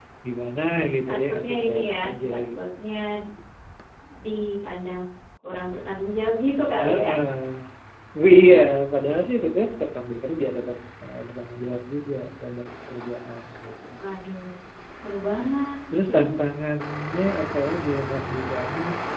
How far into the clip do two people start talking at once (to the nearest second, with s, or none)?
1 s